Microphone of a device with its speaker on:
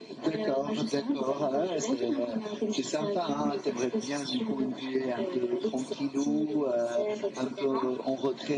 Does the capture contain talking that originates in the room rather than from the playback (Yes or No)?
No